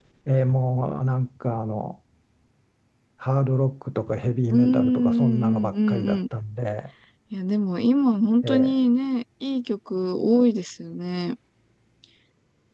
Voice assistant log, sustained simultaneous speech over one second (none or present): present